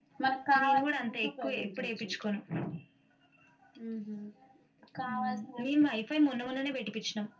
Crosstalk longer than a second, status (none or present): present